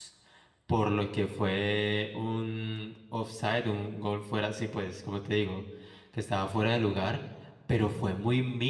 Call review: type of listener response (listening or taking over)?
listening